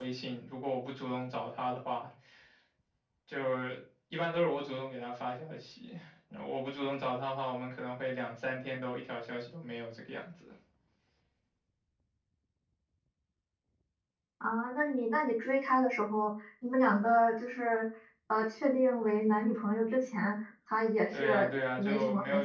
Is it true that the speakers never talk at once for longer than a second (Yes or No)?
No